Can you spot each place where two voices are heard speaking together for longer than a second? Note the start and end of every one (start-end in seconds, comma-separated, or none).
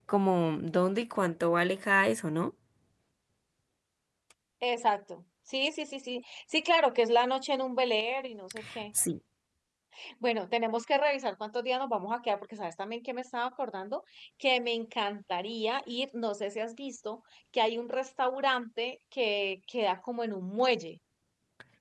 none